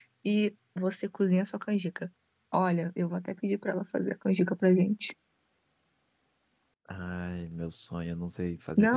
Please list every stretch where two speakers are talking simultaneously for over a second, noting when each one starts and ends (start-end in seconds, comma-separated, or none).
none